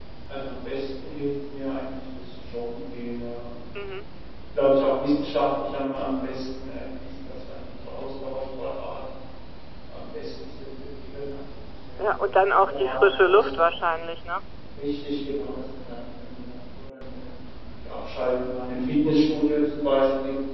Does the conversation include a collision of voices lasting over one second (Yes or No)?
Yes